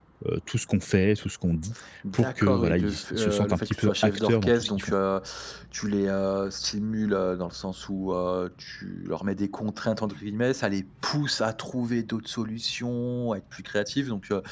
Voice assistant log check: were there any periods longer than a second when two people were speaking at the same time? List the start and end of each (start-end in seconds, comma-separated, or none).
2.1-4.9